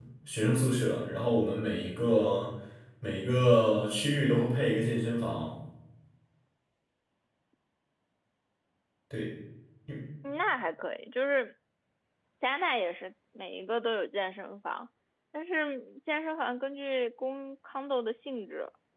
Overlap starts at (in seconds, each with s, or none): none